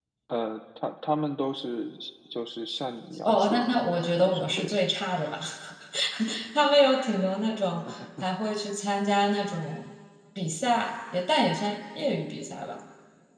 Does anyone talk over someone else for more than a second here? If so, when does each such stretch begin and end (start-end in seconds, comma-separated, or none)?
3.2-4.6